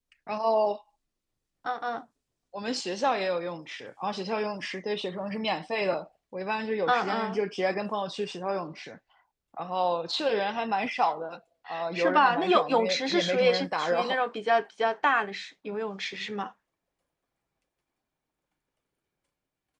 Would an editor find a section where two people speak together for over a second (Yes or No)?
Yes